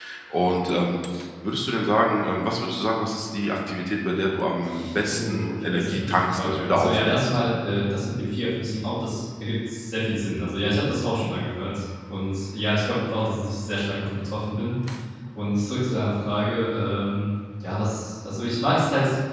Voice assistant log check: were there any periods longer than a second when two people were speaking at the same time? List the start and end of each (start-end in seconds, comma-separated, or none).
5.1-7.4